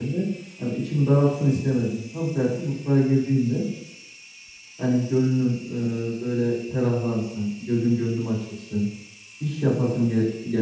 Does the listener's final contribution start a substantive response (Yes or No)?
No